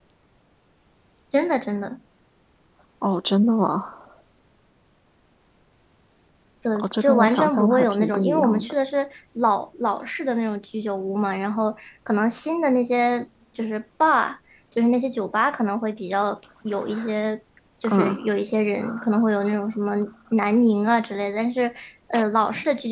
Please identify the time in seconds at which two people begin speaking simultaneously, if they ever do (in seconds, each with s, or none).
6.8 s